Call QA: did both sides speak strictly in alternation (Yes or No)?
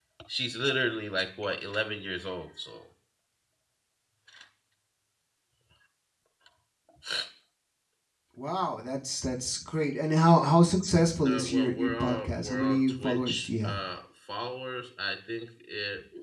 No